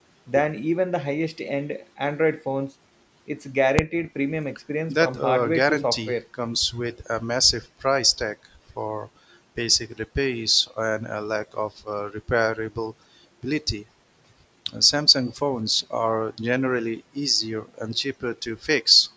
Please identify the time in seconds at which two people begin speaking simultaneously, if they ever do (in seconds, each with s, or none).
4.9 s